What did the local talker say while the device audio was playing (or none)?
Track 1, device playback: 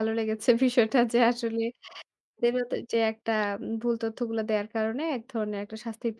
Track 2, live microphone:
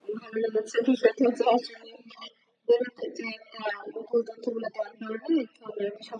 none